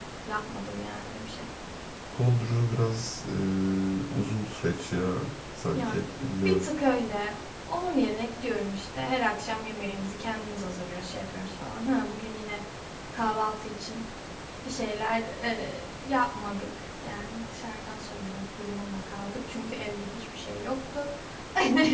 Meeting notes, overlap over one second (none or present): none